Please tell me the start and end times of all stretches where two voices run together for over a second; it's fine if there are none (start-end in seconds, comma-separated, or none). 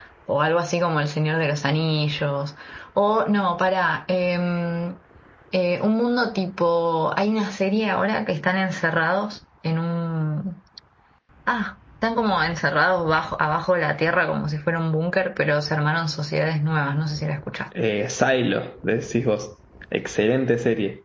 none